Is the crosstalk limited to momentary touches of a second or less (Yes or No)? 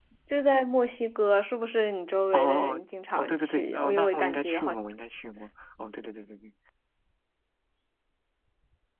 No